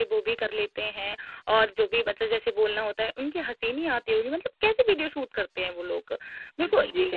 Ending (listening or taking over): taking over